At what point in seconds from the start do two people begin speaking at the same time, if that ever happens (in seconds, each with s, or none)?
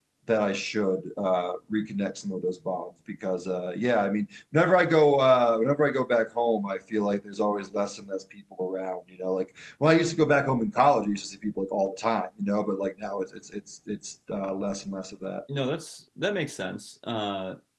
none